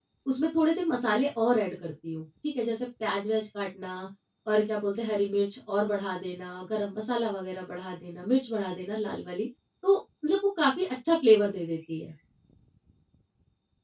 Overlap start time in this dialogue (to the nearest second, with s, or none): none